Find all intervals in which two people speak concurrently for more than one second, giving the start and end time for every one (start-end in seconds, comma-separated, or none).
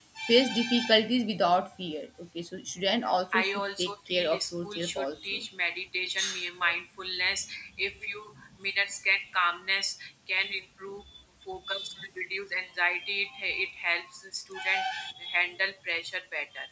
3.4-5.5